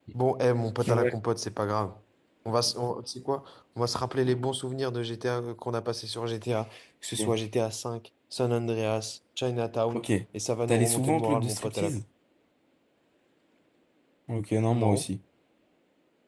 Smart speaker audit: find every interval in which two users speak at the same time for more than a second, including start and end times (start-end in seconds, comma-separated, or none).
10.7-12.0